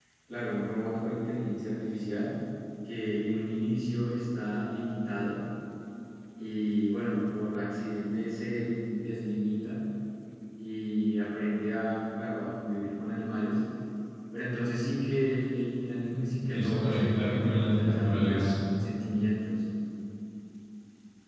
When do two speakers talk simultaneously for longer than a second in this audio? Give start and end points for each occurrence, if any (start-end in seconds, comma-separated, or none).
16.1-18.5